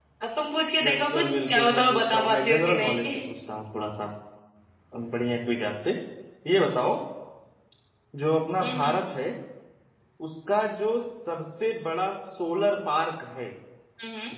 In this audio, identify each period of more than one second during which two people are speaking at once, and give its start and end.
0.8-3.3

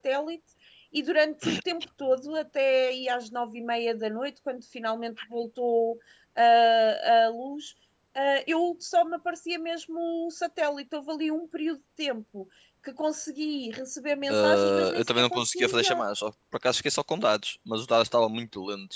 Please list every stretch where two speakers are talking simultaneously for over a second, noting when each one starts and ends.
14.3-16.0

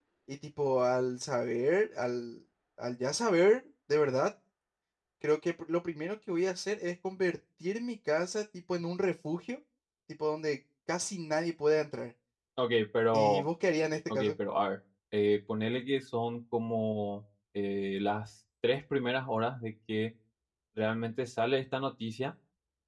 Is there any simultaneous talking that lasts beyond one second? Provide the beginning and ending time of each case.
none

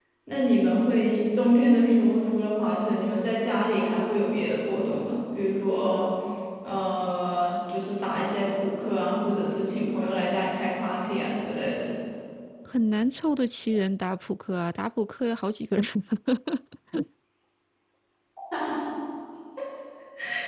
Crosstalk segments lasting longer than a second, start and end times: none

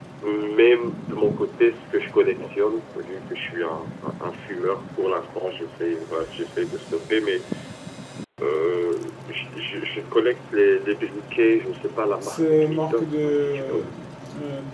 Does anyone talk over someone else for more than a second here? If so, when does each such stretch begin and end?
12.2-13.8

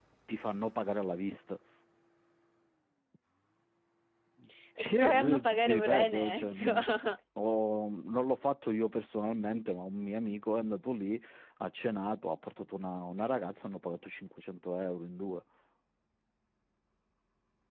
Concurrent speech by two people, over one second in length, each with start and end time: 4.8-6.7

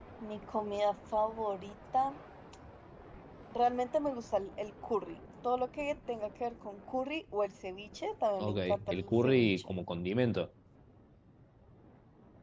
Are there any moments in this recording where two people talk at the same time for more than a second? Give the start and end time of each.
8.5-9.7

